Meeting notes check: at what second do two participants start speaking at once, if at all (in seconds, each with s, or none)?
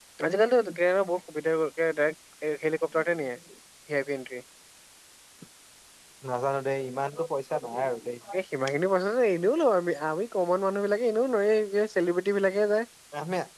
none